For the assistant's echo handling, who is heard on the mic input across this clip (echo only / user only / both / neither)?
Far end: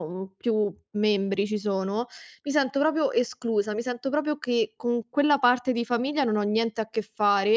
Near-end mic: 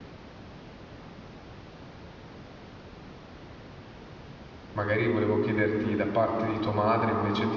user only